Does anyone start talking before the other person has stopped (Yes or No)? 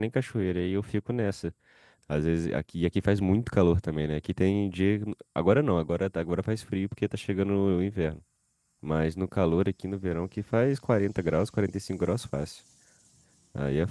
No